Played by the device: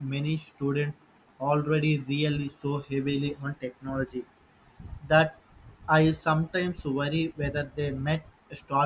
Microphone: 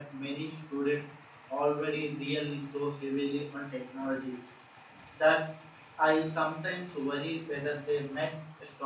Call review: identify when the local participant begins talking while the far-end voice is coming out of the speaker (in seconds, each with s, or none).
none